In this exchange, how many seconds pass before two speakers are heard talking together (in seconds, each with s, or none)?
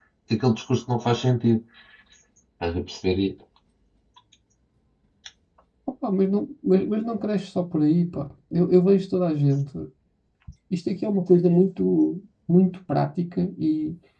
none